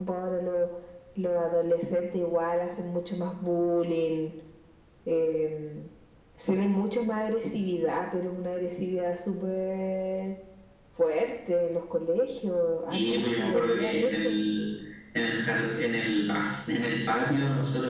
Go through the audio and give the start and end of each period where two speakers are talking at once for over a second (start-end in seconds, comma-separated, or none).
12.9-14.4